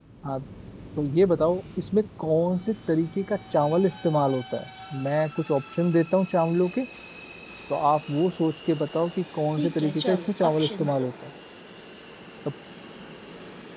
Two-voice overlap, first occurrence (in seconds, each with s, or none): 9.6 s